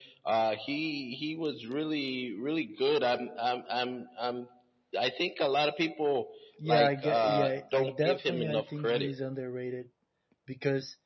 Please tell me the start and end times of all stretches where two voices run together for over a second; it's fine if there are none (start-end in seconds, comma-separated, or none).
6.6-9.2